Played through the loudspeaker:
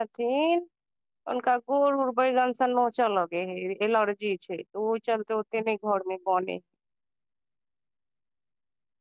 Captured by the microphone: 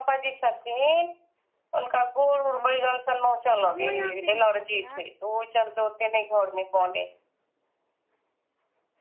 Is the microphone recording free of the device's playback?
No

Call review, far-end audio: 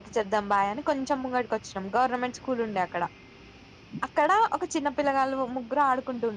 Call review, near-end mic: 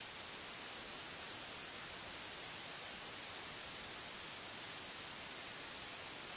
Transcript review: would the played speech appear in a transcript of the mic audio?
No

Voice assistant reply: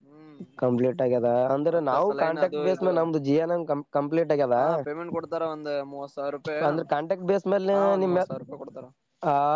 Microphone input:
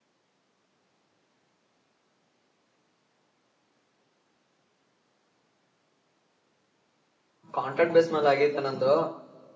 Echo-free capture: Yes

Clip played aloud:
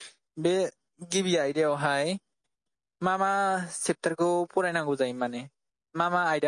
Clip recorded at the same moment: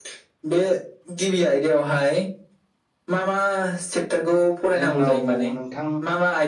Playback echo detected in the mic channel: Yes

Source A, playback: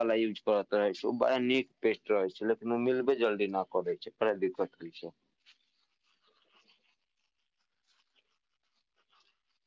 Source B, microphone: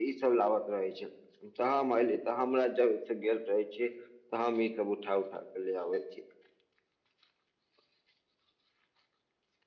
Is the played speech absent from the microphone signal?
Yes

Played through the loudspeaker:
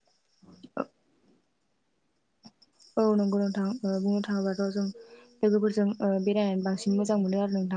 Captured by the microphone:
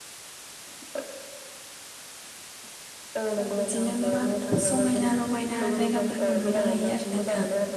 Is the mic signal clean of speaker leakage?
No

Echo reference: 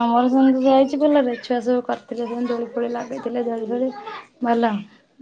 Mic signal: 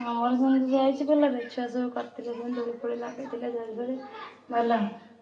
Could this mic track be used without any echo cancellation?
No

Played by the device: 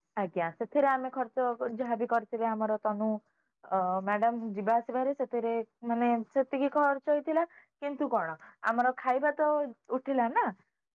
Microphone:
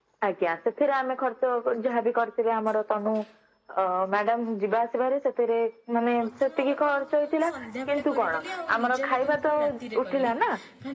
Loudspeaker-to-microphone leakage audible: Yes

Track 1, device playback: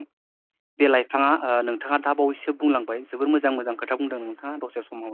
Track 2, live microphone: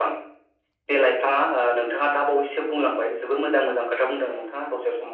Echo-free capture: No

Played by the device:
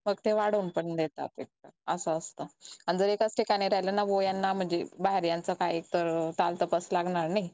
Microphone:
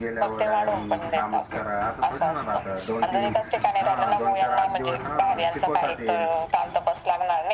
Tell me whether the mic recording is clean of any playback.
No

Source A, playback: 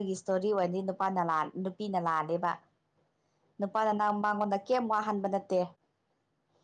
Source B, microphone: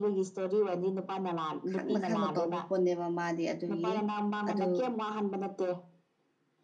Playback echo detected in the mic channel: Yes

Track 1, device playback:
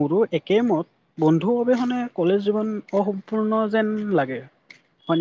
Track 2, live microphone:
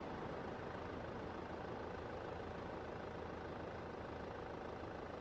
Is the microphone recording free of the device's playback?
Yes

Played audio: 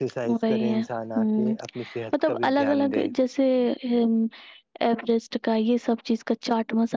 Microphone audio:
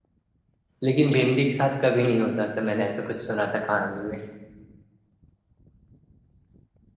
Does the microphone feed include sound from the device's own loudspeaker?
No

